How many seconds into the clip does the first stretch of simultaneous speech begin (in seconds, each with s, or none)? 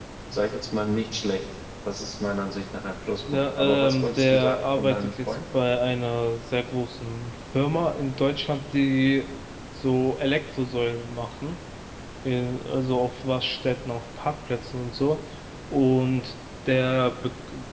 3.3 s